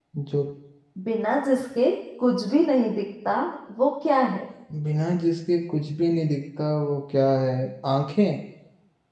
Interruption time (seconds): none

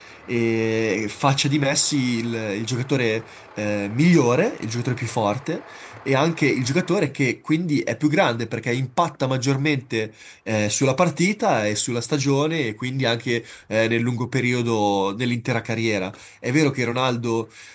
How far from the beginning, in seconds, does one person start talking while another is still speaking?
none

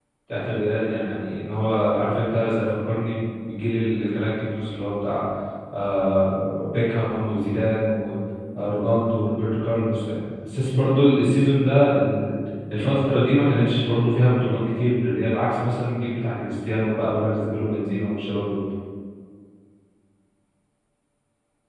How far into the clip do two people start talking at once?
none

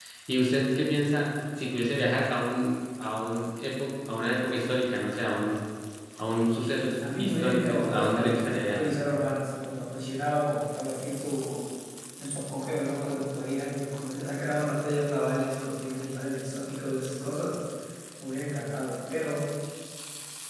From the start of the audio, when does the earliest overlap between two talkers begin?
7.0 s

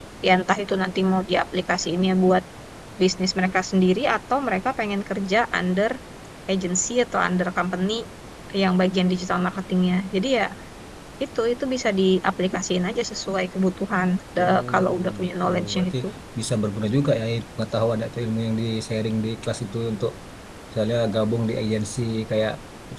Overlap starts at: 14.4 s

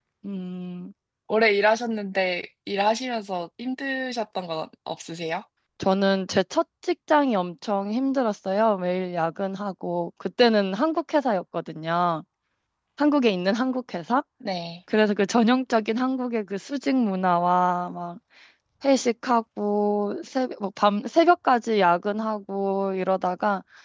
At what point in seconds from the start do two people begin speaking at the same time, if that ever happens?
none

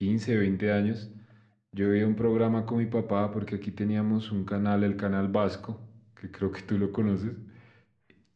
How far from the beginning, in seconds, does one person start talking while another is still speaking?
none

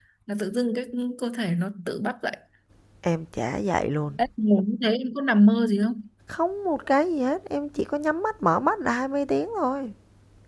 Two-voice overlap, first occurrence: none

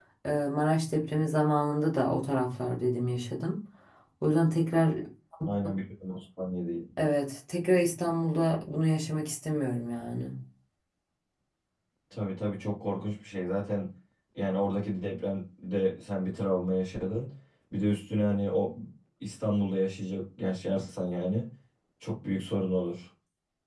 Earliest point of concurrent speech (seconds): none

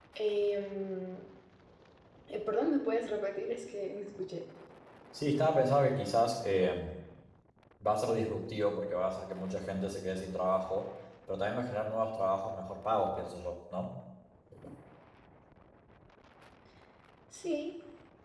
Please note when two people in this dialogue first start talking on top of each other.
none

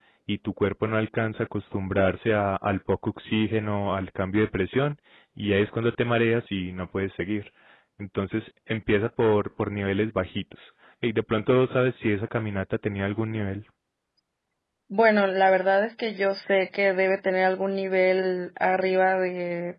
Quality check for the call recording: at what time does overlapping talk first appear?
none

